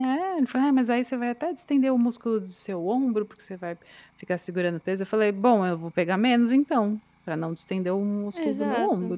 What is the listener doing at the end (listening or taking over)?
taking over